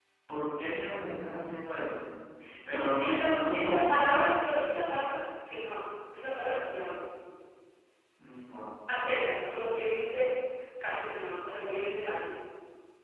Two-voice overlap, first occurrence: 2.7 s

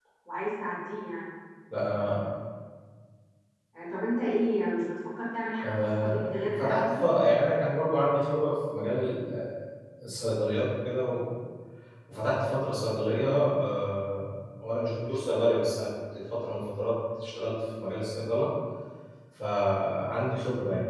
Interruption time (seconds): 5.6 s

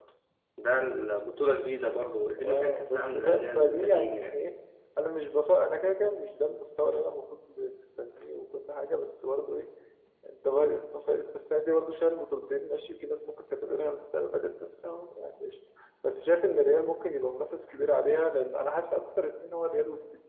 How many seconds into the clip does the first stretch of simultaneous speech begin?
2.4 s

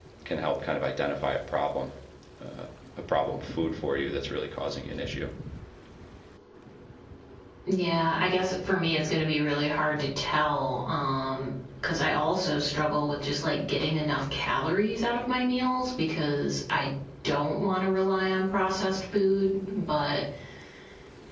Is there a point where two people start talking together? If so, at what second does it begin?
none

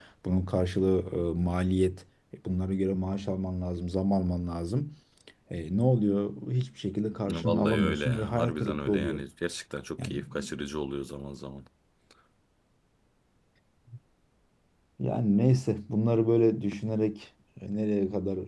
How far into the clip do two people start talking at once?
7.3 s

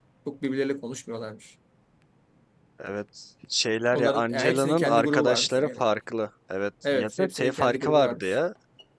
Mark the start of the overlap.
3.9 s

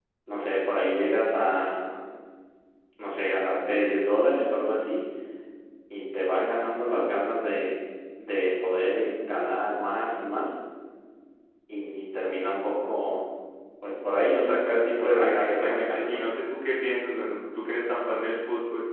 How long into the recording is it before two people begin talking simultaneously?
14.9 s

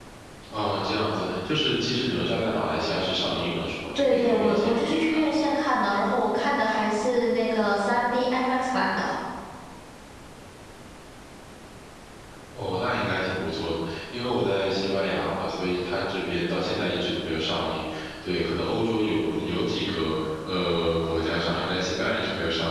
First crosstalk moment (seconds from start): 4.0 s

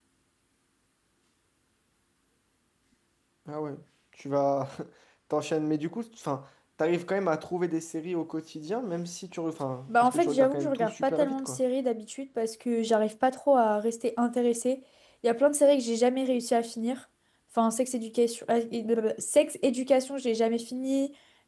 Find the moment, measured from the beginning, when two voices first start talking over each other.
9.9 s

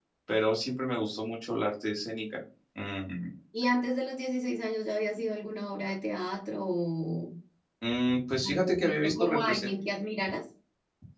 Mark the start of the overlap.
8.4 s

